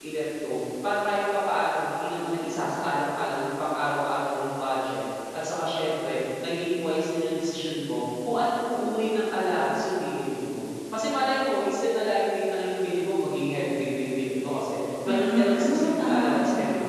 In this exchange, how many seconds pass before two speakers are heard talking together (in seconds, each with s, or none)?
15.0 s